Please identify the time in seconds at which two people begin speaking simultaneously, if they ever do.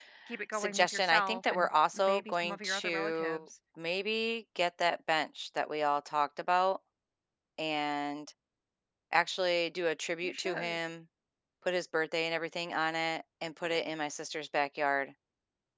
1 s

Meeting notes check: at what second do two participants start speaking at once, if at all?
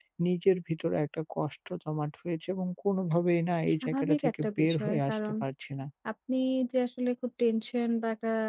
4 s

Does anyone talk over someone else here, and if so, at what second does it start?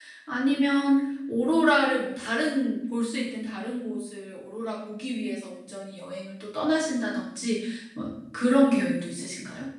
none

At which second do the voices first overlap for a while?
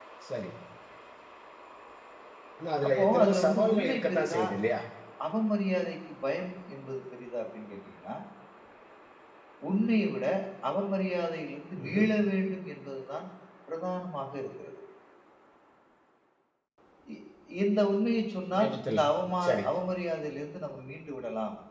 3 s

